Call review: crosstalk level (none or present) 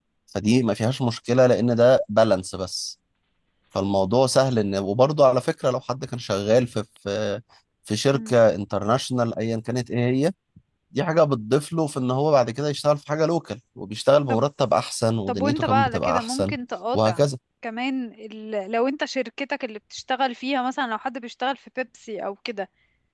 present